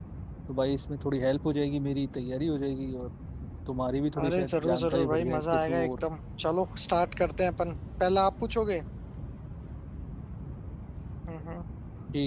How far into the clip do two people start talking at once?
4.2 s

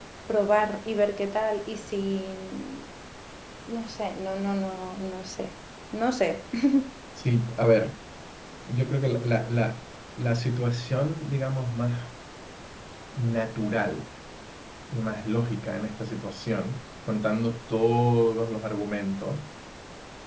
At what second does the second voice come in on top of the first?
none

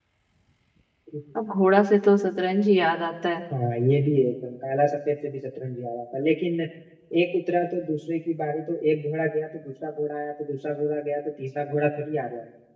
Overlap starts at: none

